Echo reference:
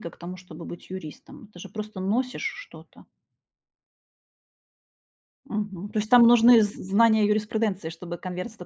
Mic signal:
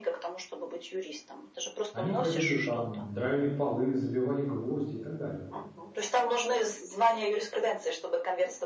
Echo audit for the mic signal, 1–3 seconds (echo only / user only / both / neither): both